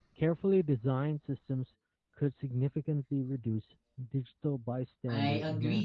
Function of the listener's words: taking over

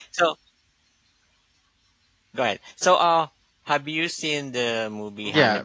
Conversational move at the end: taking over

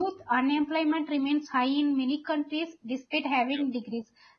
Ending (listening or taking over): listening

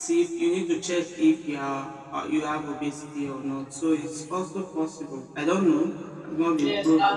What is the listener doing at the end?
taking over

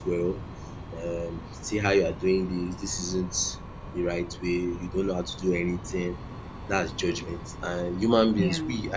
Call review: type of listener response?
listening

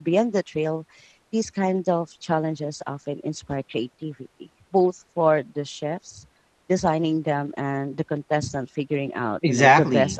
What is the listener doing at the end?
taking over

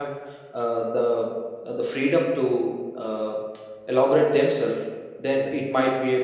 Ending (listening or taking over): listening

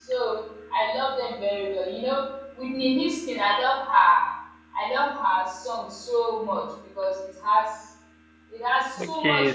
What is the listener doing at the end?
taking over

